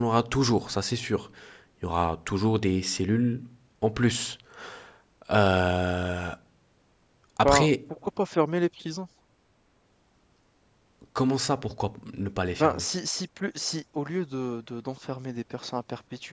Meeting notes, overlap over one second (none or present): none